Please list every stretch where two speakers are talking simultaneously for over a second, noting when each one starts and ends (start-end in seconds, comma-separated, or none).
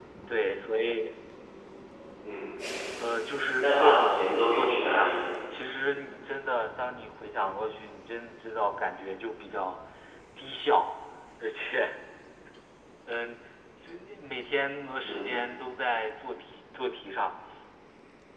3.6-5.1